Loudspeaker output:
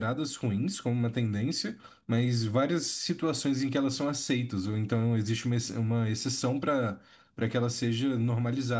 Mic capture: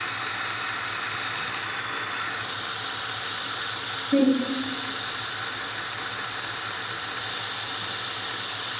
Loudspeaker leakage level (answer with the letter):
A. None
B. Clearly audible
A